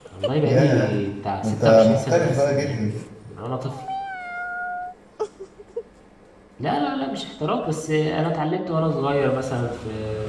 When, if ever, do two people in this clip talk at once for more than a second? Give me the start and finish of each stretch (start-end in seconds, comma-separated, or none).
1.4-3.0